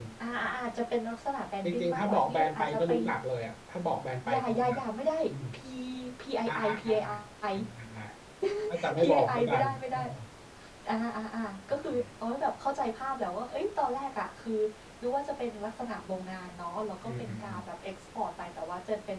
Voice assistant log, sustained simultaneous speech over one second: present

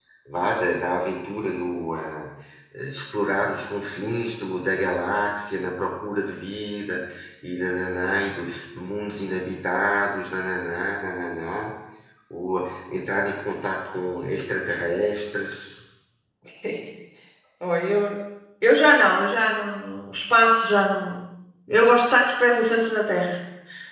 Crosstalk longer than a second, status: none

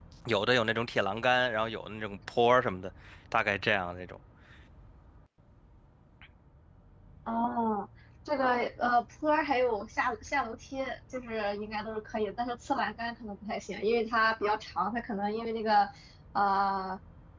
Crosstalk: none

